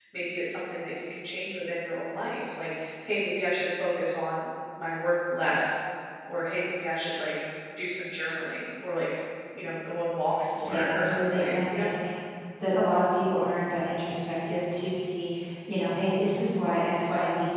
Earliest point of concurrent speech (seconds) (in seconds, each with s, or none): 10.6 s